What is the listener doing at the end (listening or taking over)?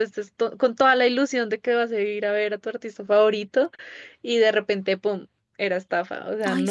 taking over